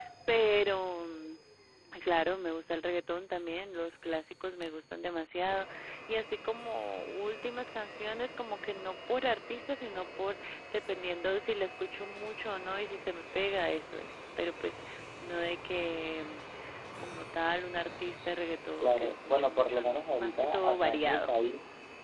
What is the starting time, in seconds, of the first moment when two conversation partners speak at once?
19 s

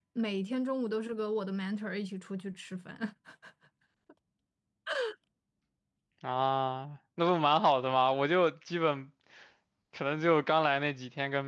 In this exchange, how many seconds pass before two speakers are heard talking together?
none

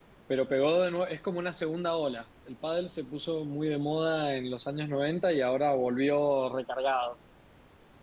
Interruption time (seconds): none

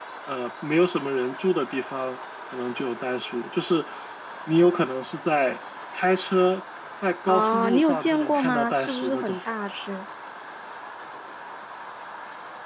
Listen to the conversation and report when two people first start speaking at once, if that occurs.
7 s

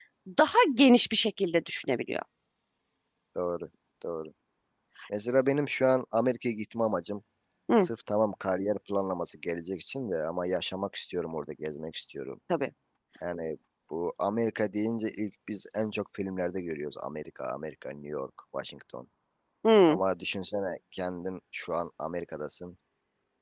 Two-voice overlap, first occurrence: none

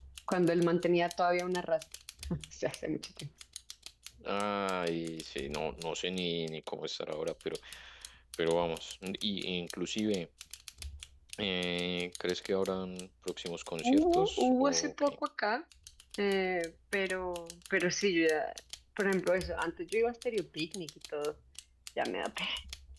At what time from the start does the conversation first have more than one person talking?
14 s

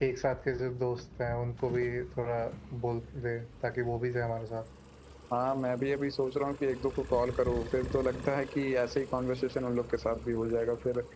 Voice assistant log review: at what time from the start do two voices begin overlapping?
none

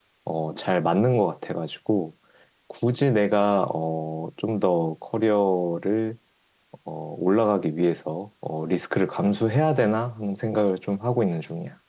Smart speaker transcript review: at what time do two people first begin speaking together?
none

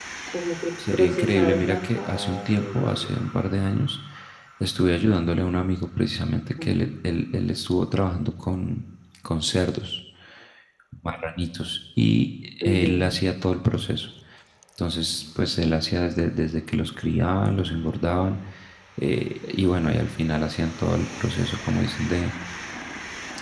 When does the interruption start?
1 s

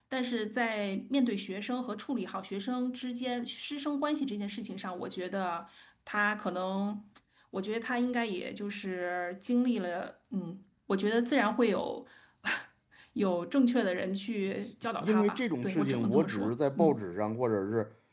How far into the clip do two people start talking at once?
15 s

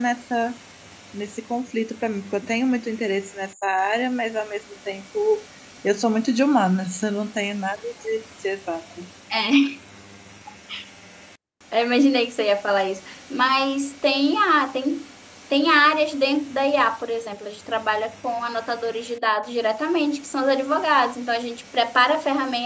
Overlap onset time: none

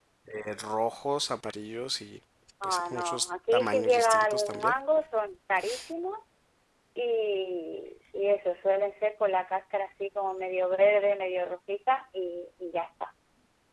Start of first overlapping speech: 3 s

